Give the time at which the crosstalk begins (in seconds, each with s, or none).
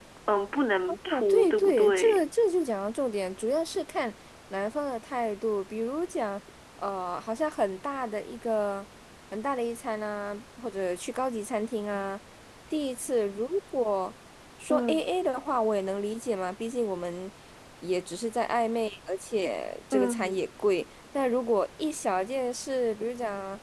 0.9 s